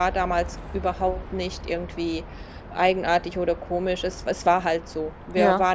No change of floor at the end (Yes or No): Yes